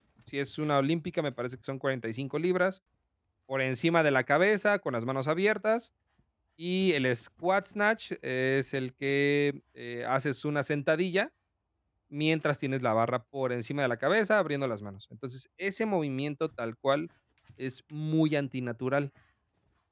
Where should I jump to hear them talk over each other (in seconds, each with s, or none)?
none